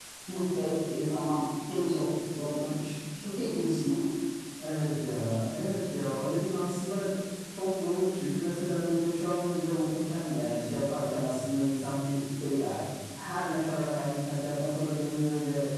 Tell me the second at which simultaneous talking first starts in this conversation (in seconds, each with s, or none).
none